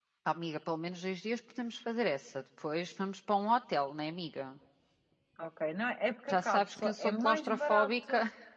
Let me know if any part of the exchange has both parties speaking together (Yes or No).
Yes